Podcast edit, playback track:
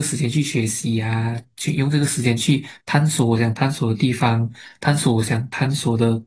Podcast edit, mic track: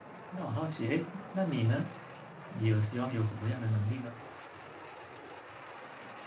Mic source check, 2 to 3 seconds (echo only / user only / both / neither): user only